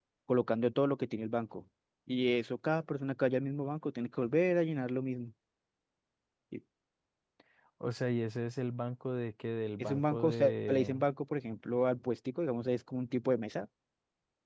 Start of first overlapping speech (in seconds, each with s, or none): 9.8 s